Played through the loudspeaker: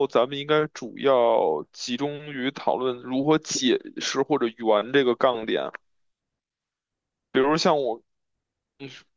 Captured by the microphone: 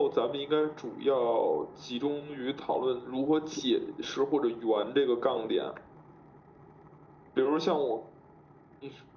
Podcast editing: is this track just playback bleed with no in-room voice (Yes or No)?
Yes